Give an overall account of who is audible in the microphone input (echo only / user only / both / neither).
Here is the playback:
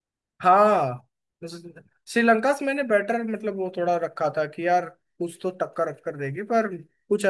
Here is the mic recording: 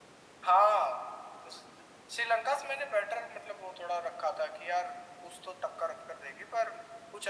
echo only